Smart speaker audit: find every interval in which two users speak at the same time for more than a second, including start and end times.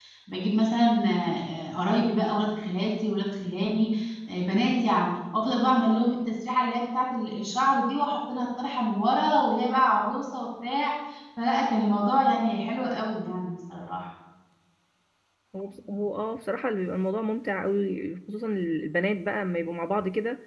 none

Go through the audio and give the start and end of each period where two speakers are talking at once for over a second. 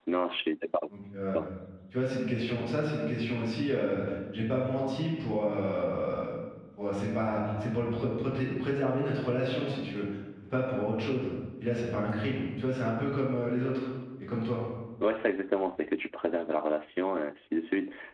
none

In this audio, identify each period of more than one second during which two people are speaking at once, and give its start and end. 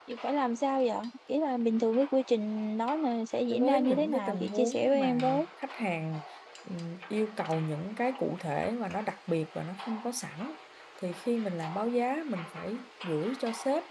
3.5-5.4

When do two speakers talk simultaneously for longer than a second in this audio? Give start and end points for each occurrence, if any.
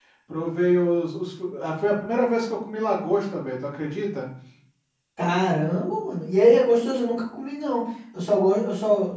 none

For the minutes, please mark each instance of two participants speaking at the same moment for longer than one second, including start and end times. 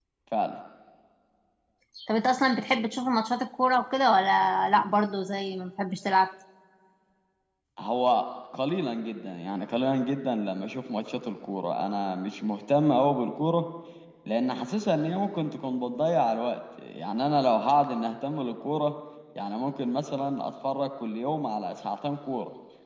none

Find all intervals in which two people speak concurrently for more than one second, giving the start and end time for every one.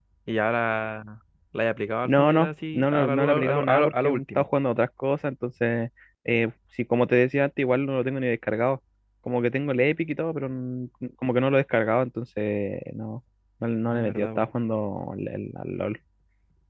2.0-4.5

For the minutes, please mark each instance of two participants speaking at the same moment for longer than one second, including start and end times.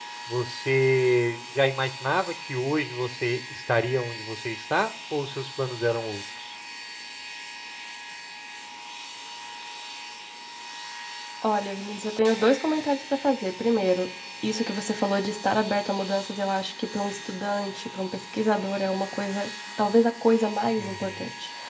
none

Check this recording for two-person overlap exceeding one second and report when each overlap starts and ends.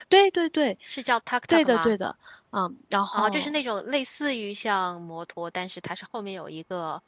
none

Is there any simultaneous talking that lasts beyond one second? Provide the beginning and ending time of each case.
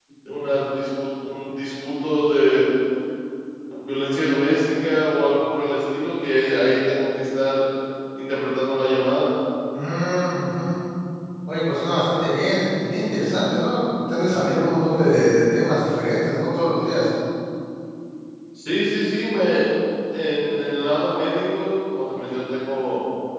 none

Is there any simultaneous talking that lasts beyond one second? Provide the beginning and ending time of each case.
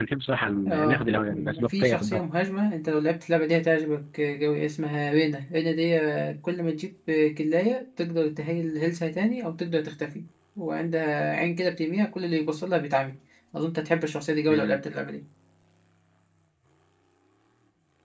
0.7-2.2

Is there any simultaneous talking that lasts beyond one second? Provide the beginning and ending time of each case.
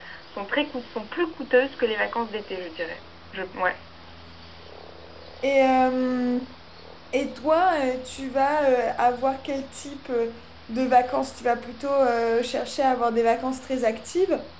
none

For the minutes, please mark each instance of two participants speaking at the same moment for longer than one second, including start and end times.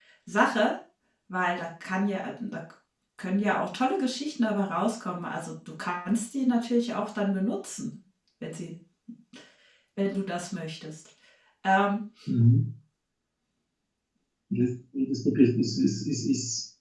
none

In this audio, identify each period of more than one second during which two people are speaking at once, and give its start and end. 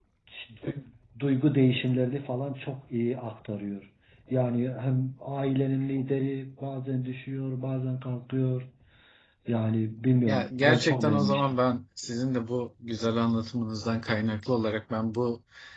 10.3-11.6

